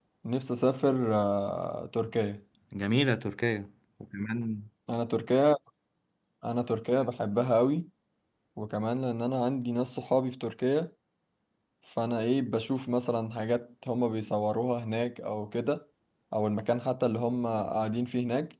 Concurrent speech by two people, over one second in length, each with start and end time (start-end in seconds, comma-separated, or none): none